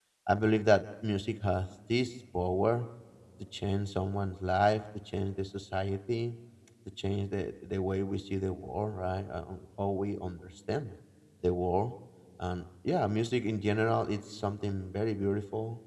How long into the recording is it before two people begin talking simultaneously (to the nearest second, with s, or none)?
none